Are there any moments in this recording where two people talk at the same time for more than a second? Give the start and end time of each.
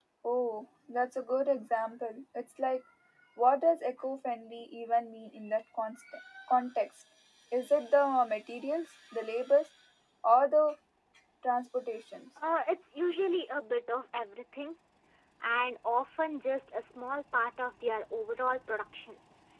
none

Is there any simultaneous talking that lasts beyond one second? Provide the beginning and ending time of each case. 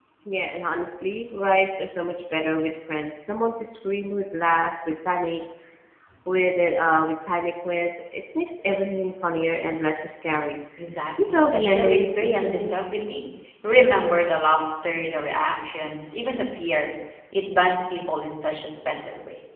11.2-12.8

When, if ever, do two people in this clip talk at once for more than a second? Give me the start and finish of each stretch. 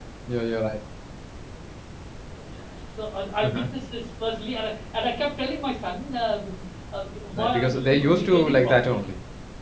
7.4-9.0

